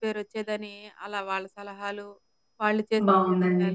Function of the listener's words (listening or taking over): taking over